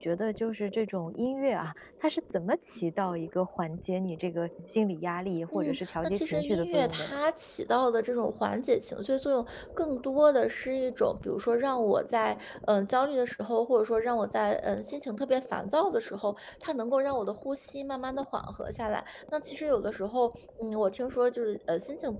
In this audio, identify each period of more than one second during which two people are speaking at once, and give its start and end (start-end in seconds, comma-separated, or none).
5.5-7.1